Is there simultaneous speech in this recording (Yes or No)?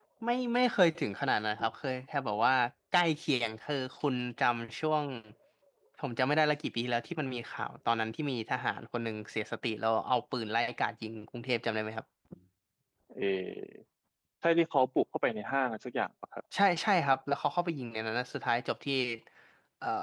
No